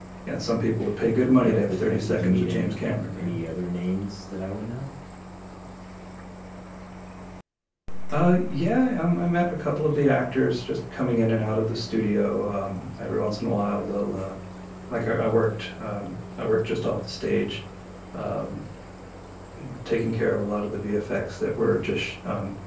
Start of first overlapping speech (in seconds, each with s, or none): 1.2 s